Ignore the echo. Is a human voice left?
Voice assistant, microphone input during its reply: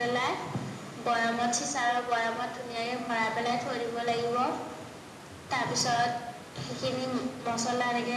No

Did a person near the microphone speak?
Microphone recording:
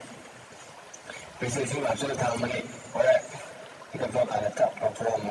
No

